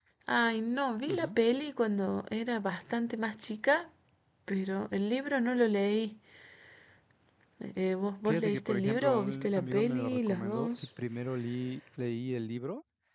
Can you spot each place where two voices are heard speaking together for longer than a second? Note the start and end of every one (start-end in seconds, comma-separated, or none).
8.2-10.7